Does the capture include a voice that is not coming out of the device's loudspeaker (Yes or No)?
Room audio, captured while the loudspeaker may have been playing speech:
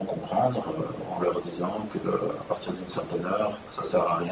No